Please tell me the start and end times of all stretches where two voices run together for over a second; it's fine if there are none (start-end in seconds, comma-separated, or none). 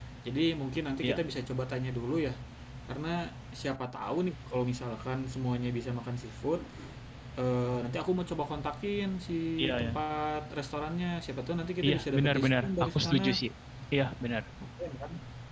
11.8-13.2